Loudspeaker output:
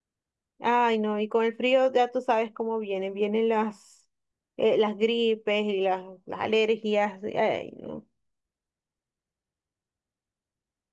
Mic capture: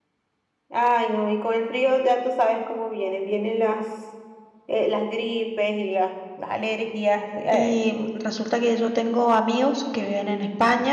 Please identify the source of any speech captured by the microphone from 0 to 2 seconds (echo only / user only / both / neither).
echo only